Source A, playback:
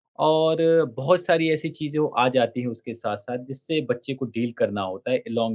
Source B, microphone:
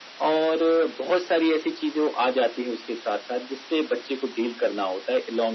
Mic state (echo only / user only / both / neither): echo only